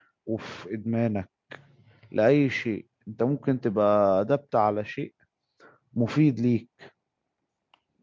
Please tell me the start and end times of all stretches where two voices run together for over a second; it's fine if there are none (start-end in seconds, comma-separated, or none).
none